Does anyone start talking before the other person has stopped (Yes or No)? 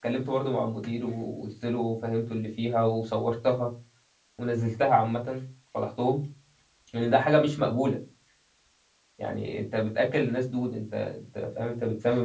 No